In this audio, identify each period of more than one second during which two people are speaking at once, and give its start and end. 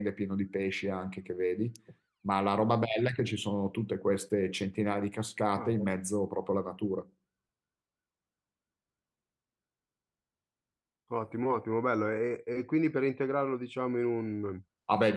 none

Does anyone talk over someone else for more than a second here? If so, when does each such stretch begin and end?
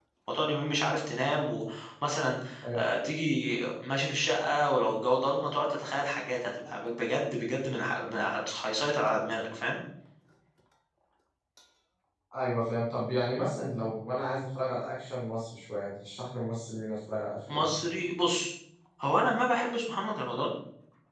none

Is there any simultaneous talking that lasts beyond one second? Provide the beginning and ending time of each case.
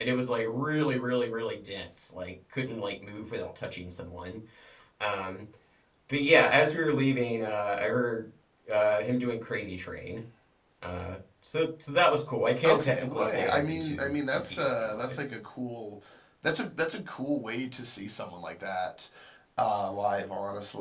12.6-15.1

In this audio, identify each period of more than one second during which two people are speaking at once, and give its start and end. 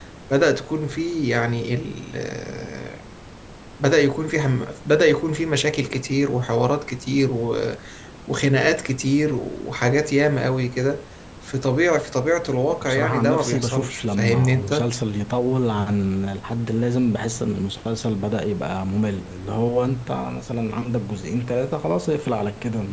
12.9-14.9

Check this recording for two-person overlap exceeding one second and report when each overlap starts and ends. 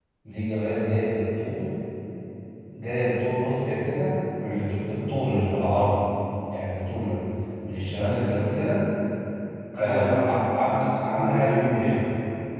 9.8-12.0

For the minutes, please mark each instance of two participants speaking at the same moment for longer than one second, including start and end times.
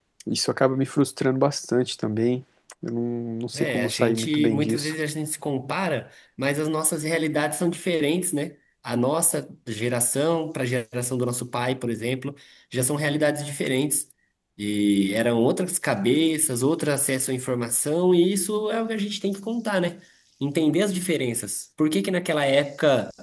3.5-4.9

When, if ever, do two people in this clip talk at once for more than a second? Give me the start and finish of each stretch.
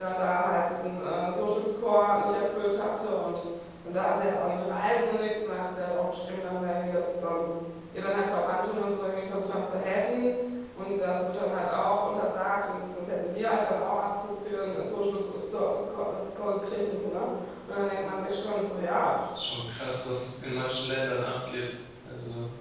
none

